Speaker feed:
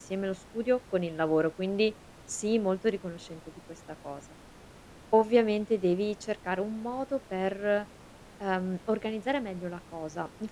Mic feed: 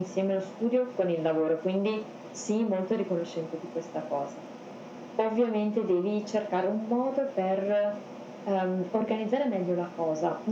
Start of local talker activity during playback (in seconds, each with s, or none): none